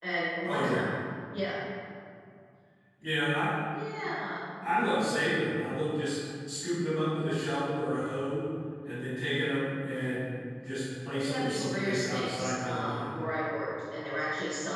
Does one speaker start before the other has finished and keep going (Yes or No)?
Yes